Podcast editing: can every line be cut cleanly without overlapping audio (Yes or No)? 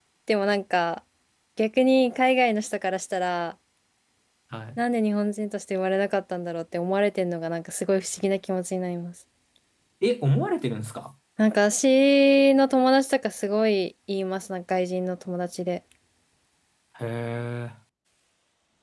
Yes